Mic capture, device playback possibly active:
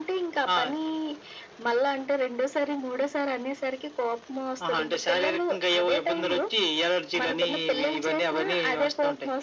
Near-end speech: none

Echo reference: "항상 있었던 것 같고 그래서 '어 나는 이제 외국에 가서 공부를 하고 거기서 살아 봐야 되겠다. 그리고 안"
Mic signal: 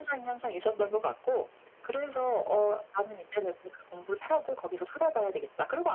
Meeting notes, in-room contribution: none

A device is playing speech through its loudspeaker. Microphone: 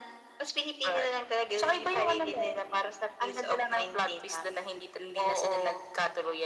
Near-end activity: none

